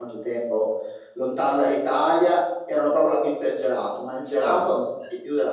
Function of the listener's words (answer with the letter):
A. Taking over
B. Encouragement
B